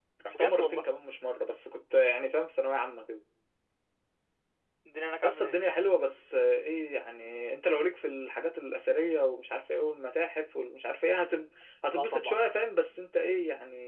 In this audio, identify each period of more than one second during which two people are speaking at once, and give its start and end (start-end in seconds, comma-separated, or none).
none